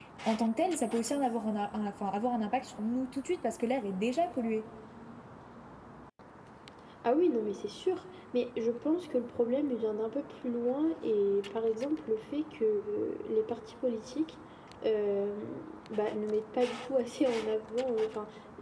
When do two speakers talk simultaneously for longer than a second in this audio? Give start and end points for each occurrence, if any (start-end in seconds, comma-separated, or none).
none